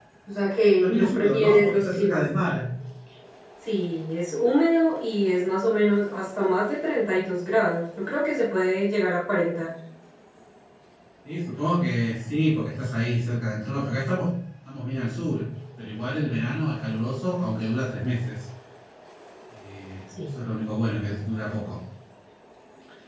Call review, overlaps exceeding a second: present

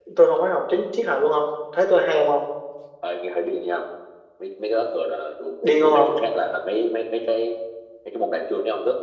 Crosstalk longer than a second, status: none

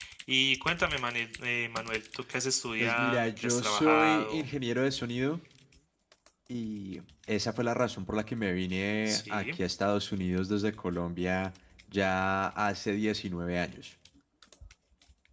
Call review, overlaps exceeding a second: present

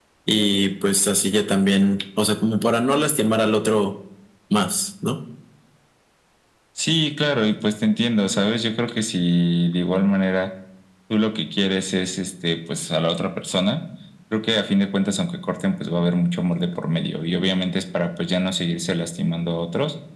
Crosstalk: none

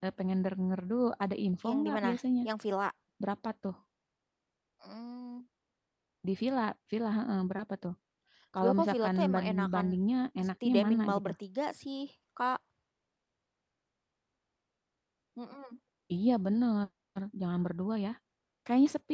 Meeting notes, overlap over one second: present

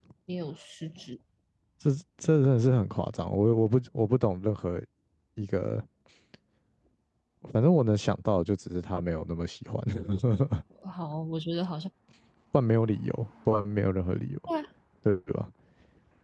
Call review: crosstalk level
none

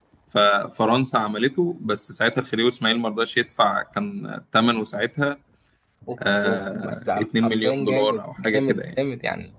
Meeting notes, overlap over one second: present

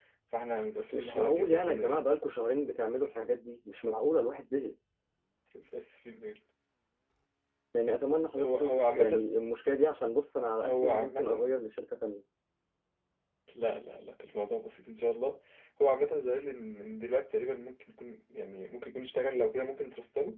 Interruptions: present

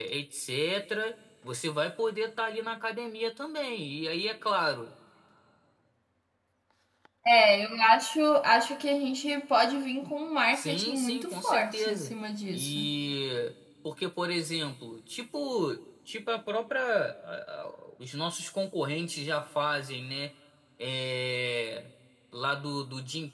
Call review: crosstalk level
present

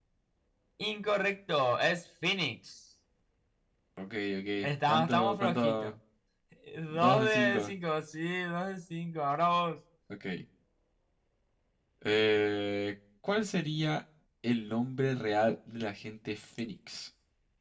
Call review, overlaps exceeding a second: present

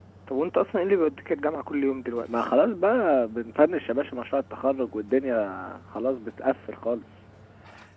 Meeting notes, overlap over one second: none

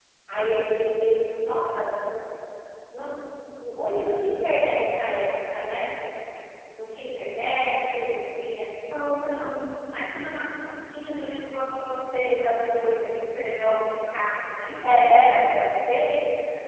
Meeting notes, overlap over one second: none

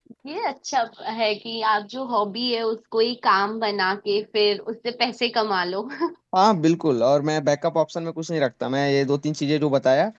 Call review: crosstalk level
none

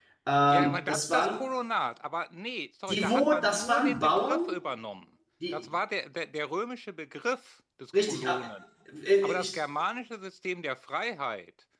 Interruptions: present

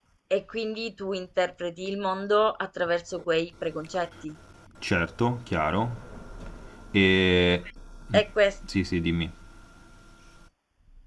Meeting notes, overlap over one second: none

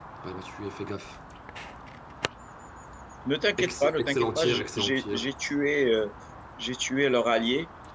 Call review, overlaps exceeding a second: present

